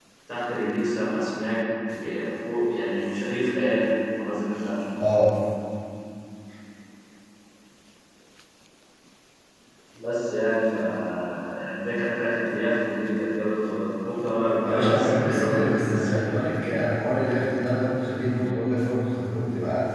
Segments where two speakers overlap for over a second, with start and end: 14.6-16.4

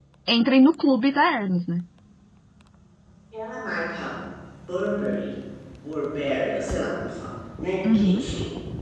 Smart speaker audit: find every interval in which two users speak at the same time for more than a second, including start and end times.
none

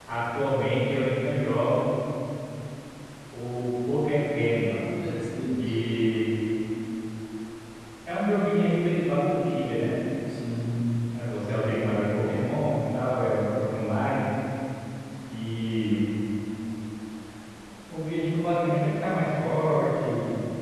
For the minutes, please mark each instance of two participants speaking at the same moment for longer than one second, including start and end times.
none

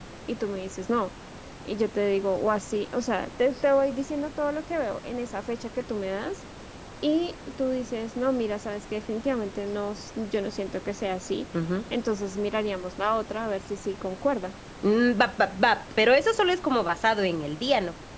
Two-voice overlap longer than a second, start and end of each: none

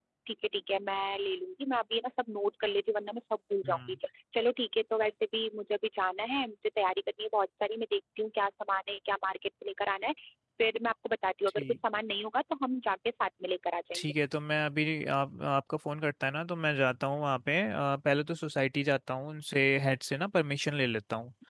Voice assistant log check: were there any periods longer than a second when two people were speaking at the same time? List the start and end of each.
none

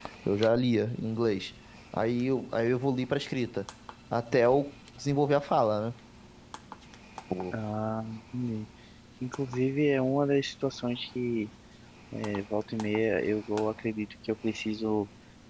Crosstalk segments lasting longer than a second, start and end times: none

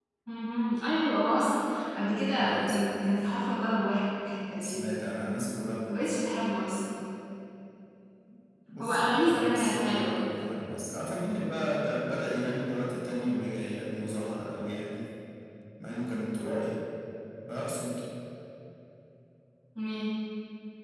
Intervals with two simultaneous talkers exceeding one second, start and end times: 8.8-10.2

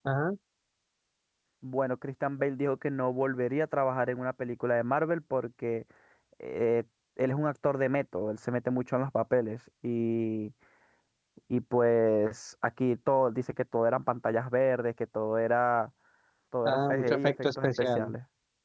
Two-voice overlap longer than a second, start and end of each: 16.6-18.1

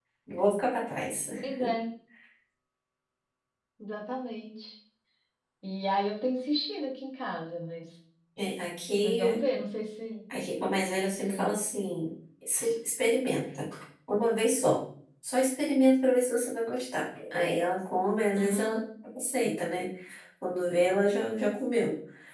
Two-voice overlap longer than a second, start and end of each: none

